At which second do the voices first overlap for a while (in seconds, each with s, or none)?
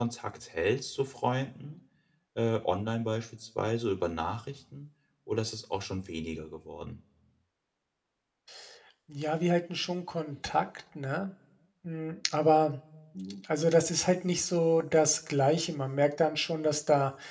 none